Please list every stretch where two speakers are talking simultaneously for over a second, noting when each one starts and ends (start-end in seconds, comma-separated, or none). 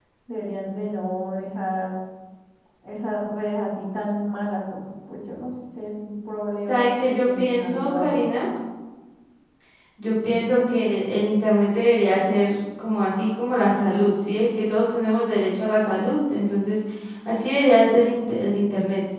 6.7-8.2